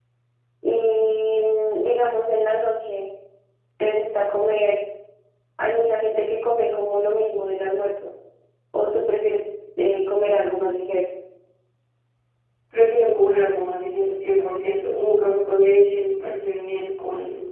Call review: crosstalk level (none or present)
none